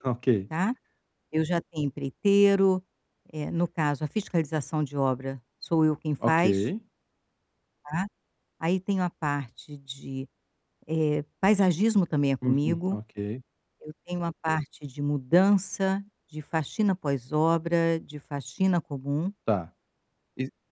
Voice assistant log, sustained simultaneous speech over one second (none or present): none